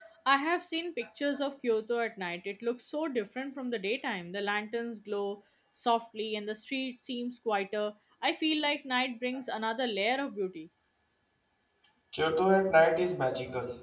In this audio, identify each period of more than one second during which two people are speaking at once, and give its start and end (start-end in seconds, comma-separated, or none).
none